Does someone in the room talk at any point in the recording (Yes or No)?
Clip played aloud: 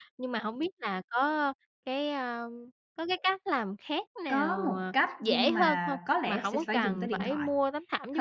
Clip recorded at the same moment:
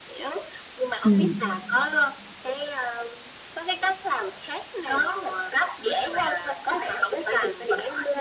Yes